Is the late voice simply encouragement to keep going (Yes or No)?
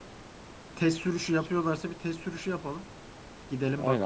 No